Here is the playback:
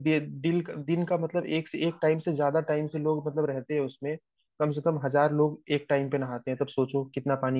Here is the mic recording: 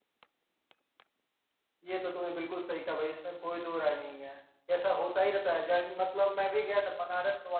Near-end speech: present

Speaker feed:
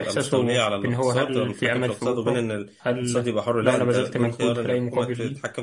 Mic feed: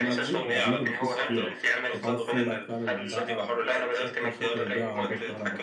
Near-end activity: present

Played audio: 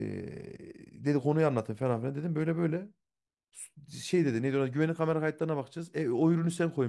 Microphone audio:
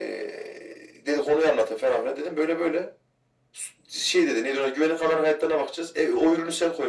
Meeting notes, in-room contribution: none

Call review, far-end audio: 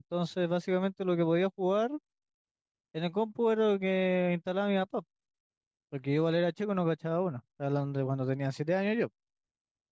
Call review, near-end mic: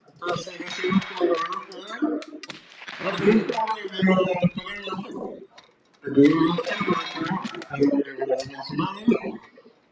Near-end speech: present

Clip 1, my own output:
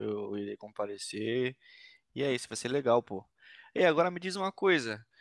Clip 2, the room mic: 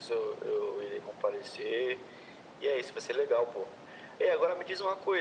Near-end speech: none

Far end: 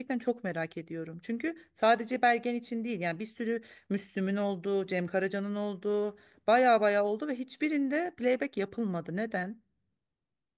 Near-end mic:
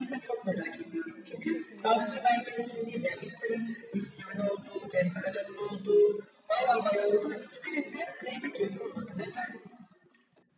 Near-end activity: present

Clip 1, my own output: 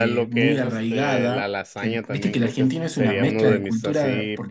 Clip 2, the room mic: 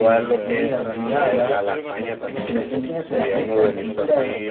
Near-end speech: present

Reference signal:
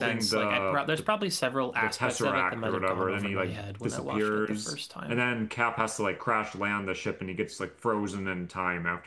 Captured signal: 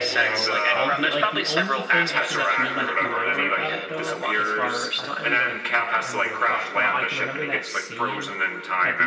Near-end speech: present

